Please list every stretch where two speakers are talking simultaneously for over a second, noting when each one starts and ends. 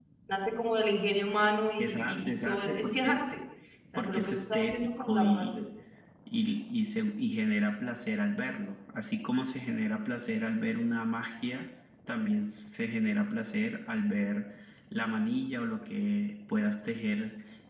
1.8-3.2, 4.0-5.6

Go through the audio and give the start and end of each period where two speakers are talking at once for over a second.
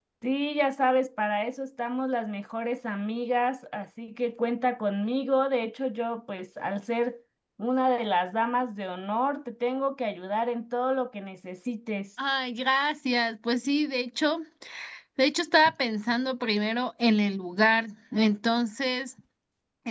none

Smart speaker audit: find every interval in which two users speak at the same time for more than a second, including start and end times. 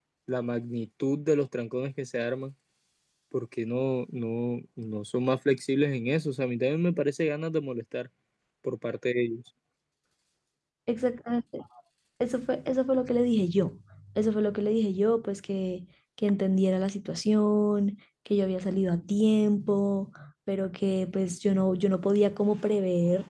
none

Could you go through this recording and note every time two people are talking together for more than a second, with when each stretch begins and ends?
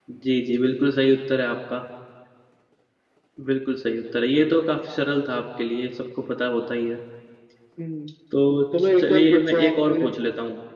8.8-10.0

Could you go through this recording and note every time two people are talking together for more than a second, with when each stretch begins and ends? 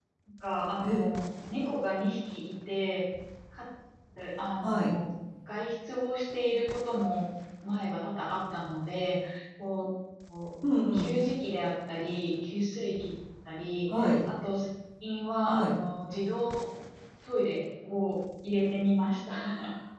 none

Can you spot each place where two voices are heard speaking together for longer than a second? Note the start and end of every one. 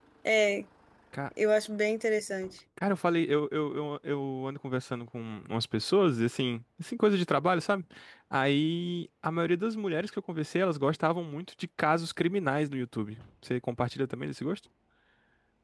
none

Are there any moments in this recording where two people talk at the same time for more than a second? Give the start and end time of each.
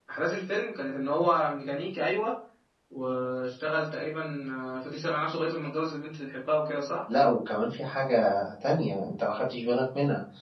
none

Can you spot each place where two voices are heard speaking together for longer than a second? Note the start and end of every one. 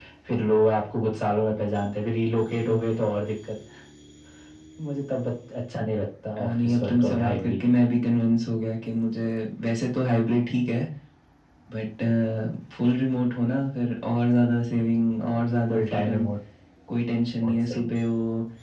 6.4-7.7

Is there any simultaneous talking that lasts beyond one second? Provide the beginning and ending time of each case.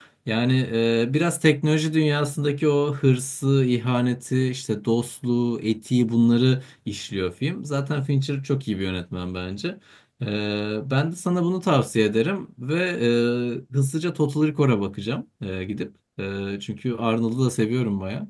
none

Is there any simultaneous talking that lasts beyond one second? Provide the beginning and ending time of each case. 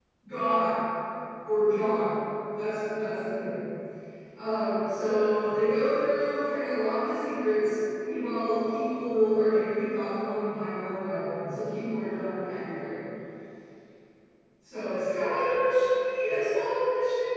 none

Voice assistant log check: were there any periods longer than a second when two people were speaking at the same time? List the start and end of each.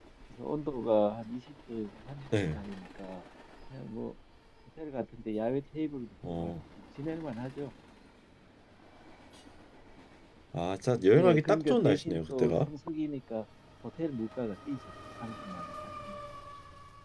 11.2-12.7

